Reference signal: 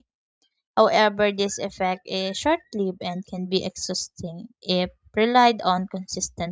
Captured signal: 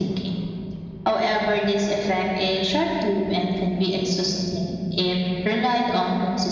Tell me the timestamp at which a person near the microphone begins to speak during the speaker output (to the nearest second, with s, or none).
none